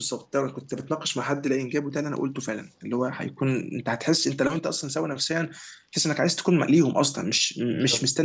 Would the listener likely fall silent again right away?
Yes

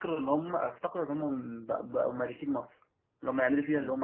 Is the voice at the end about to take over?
No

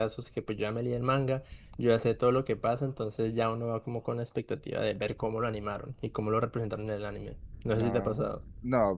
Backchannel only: No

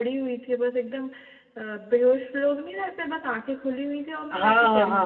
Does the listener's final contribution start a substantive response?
Yes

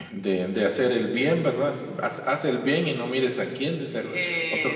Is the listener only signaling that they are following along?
No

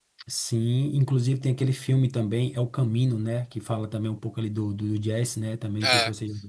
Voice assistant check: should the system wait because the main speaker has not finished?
No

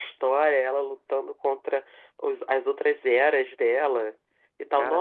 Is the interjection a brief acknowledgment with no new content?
Yes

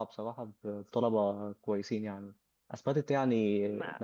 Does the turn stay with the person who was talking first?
Yes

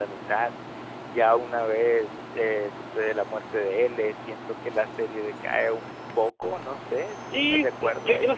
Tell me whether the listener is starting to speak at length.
Yes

